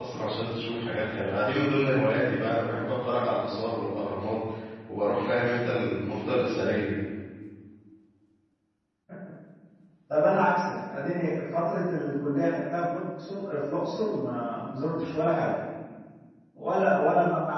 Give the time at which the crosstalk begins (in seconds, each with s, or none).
none